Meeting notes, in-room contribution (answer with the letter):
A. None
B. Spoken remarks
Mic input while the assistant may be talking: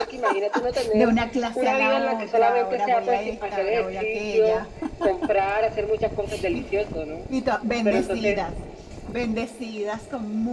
B